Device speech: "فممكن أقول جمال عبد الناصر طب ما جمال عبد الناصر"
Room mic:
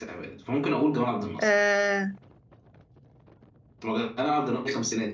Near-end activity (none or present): present